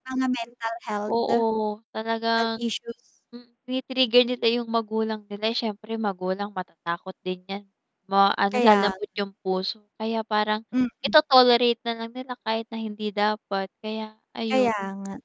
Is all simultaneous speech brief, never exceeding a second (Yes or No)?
Yes